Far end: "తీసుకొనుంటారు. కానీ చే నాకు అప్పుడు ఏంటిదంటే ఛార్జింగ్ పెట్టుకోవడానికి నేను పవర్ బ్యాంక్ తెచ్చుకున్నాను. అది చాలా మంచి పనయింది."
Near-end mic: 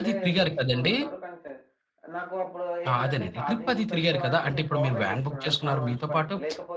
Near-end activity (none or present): present